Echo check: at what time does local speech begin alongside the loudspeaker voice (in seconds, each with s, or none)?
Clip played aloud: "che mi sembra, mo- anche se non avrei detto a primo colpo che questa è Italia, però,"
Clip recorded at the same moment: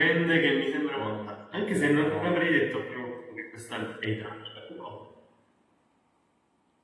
0.9 s